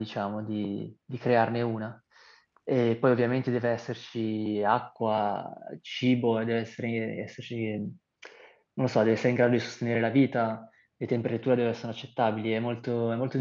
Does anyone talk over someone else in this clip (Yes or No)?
No